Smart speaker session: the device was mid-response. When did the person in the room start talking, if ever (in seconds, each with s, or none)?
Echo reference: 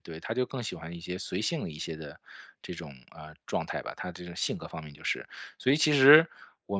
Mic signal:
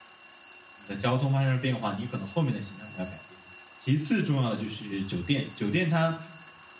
0.8 s